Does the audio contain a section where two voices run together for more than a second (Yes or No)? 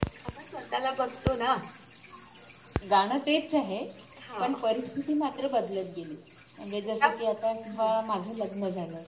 No